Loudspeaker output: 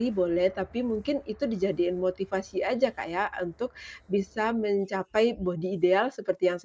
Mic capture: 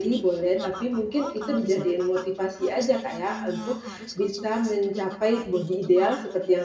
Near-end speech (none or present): present